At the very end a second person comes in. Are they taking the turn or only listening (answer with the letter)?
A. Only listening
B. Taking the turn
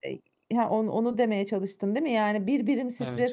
A